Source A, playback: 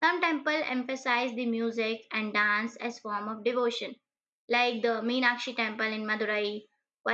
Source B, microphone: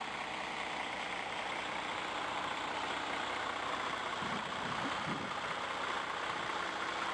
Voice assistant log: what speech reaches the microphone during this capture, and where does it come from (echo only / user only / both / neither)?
neither